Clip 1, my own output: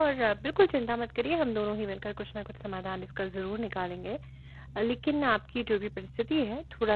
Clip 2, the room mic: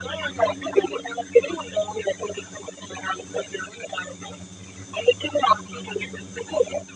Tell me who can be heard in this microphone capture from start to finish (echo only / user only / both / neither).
echo only